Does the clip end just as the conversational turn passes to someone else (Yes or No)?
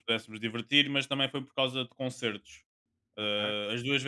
No